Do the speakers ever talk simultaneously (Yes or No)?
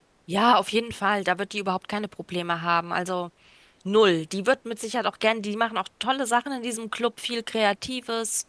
No